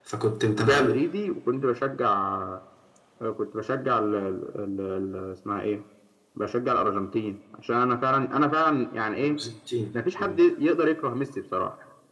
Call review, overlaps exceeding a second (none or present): none